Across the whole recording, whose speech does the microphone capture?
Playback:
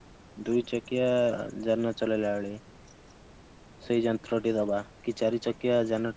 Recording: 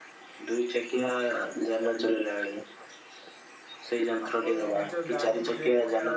both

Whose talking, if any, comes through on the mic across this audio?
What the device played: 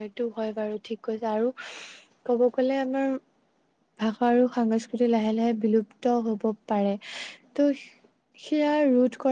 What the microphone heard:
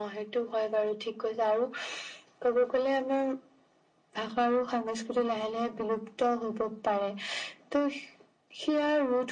echo only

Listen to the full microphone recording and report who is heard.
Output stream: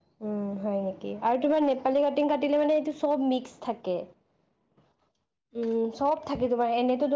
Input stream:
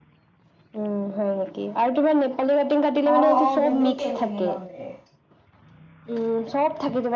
both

